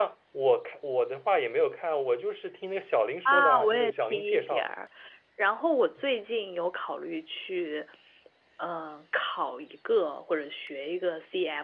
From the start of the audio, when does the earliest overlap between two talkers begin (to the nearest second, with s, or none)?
3 s